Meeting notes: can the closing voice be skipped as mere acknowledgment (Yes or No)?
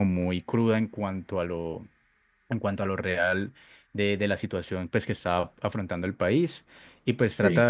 Yes